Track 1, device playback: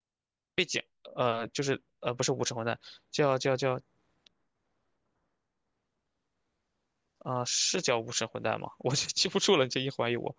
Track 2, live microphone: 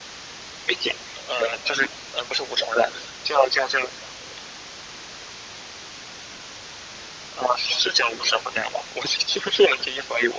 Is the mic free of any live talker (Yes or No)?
Yes